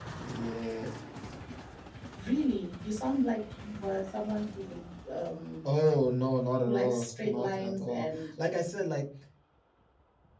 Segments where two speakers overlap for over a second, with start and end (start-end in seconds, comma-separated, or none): 6.7-8.1